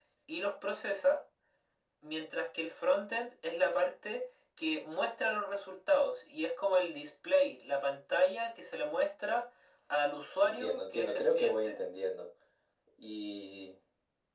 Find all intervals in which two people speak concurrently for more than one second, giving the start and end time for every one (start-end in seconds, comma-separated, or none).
10.4-11.7